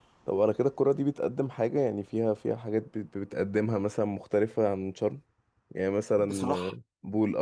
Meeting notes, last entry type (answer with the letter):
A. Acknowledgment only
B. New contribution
A